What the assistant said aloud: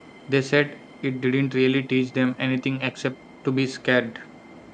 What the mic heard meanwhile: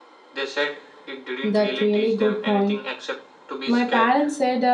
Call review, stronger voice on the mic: user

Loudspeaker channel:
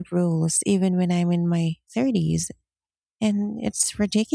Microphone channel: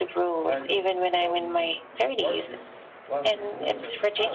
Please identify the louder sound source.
echo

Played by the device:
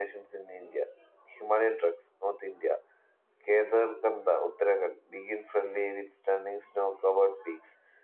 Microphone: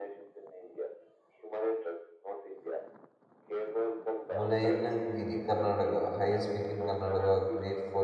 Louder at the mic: user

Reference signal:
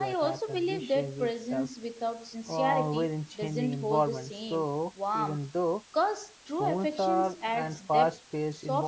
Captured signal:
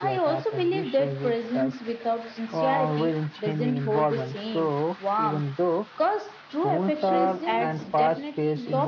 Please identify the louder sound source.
echo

